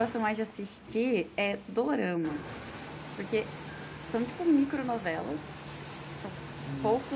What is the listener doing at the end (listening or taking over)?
listening